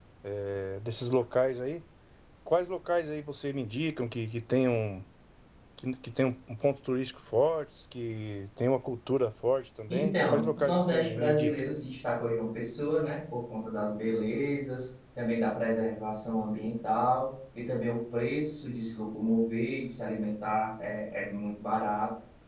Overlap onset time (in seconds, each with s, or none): 9.9 s